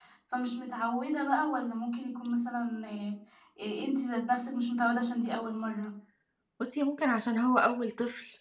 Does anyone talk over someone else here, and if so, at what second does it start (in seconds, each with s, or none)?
none